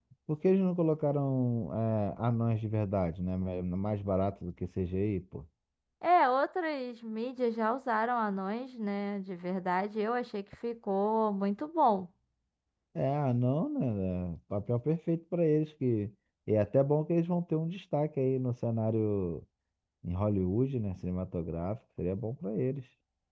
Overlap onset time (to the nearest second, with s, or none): none